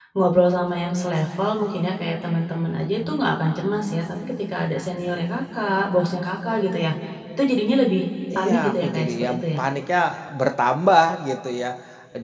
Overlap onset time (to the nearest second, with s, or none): 8 s